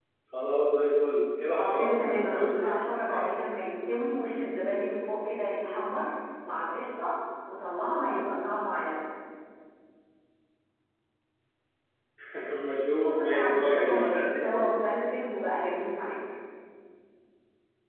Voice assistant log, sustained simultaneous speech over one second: present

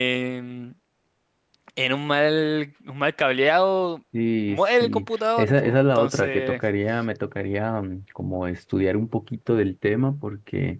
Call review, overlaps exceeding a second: present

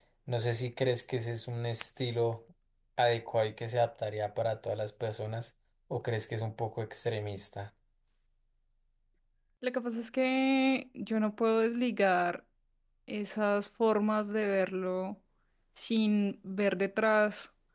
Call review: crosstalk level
none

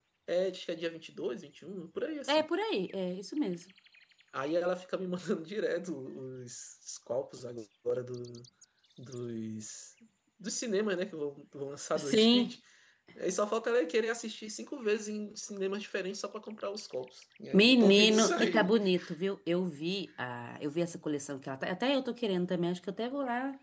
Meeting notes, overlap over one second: present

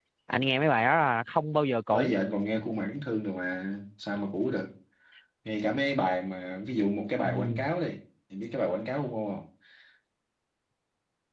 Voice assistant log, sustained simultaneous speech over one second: none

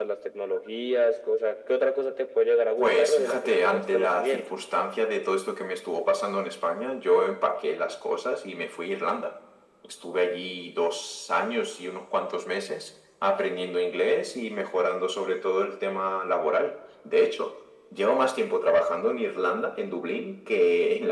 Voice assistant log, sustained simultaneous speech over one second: present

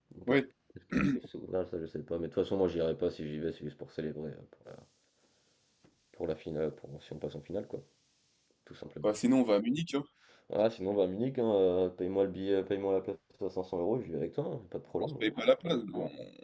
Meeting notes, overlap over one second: none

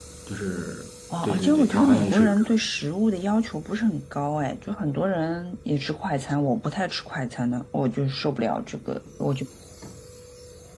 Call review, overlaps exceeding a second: present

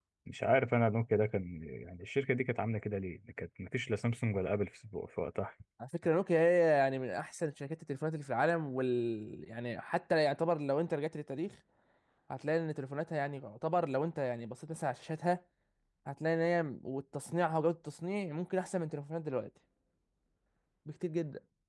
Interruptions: none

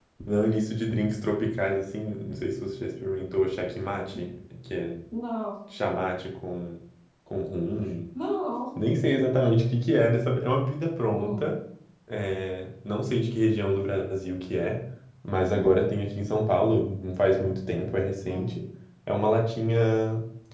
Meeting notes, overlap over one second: none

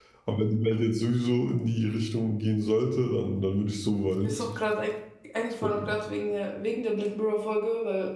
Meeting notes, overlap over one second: none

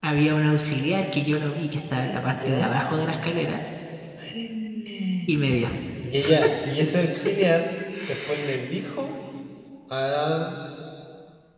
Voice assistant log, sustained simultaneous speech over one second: none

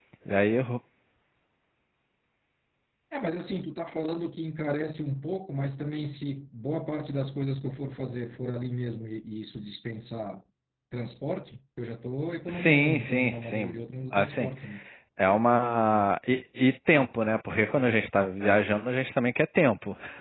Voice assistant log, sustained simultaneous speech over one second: present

